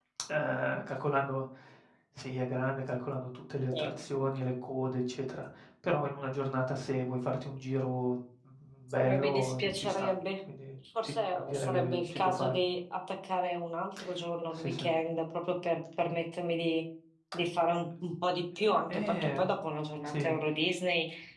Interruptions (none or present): present